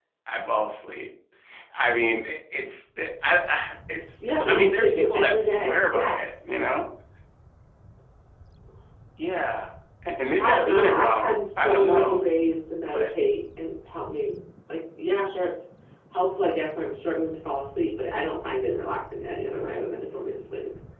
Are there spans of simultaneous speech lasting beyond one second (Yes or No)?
Yes